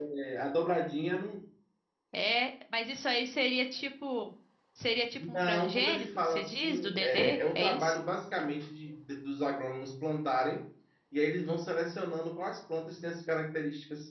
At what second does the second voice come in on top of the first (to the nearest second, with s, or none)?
5 s